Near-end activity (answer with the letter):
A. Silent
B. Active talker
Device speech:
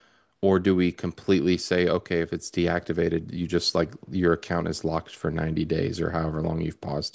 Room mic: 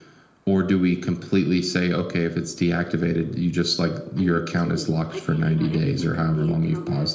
B